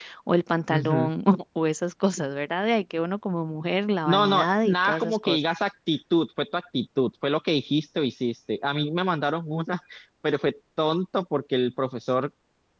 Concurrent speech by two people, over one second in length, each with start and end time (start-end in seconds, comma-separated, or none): 4.0-5.4